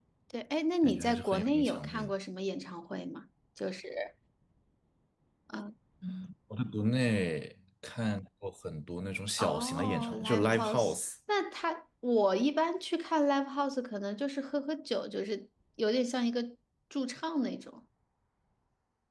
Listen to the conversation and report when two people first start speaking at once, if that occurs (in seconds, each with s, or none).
0.8 s